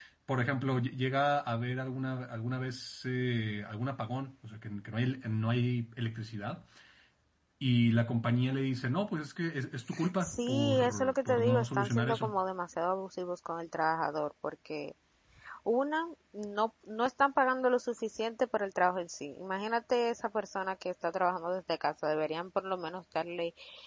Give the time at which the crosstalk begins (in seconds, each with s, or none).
10.2 s